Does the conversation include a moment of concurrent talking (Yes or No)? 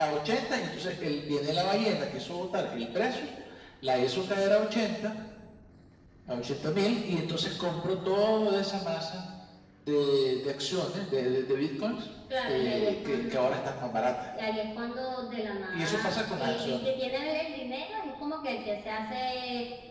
Yes